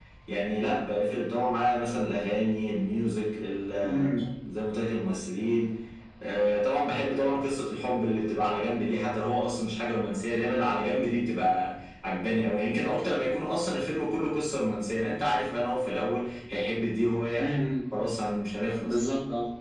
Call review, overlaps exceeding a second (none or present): none